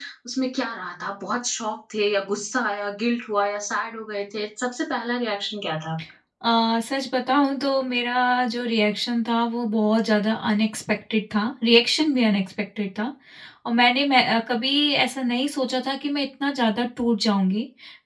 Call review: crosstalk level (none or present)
none